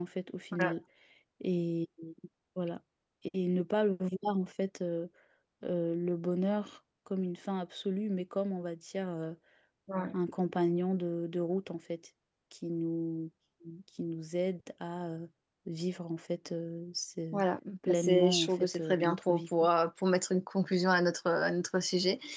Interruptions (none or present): present